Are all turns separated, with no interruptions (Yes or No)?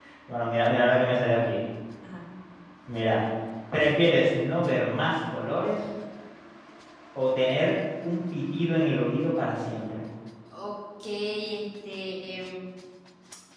Yes